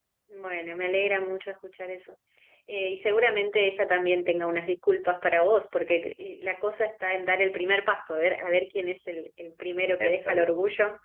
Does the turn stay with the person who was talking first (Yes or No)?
Yes